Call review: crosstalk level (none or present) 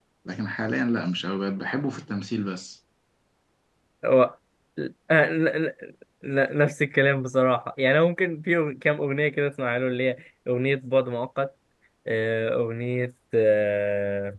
none